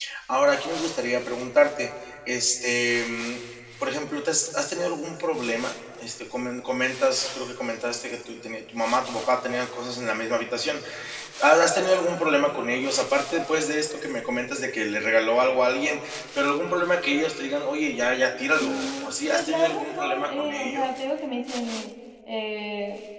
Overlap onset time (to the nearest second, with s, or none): 19 s